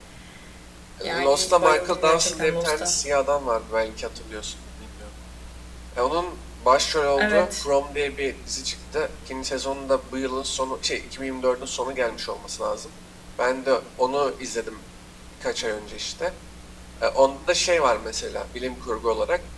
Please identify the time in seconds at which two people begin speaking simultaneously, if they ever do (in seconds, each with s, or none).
1.2 s